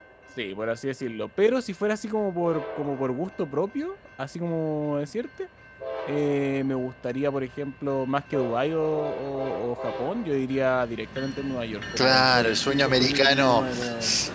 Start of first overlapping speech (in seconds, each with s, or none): 12.0 s